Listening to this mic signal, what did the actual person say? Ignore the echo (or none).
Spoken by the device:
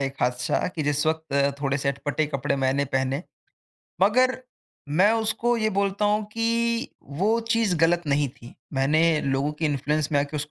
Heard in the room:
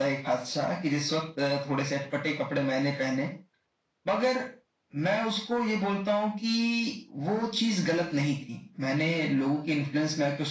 none